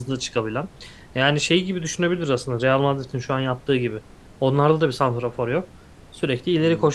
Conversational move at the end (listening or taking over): listening